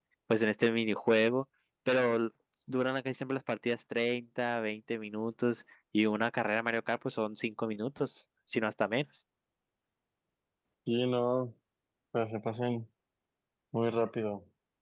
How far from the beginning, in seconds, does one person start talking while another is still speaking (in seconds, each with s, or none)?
none